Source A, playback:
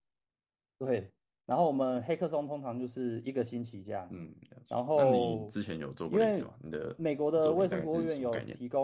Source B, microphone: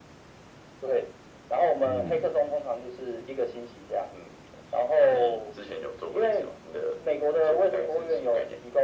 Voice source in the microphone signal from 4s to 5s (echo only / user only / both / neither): echo only